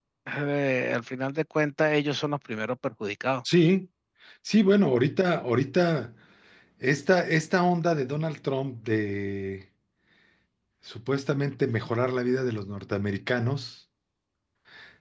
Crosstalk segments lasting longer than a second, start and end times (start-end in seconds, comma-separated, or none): none